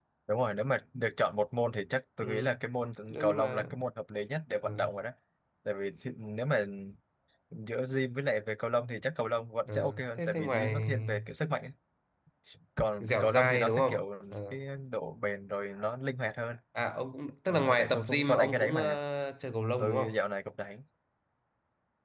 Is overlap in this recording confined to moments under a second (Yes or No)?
No